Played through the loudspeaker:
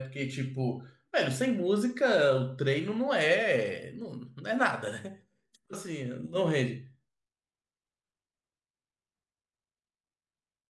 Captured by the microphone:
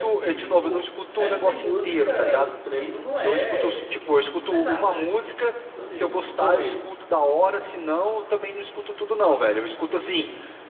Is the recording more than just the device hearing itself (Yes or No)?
Yes